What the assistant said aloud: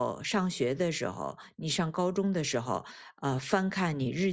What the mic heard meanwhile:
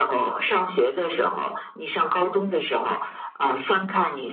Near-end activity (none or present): none